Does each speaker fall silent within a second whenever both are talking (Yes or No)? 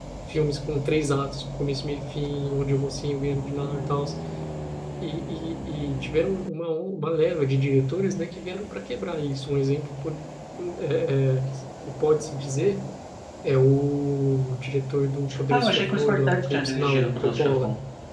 No